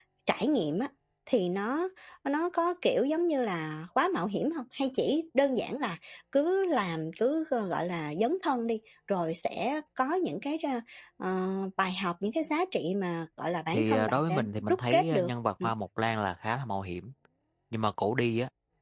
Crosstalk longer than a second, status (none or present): present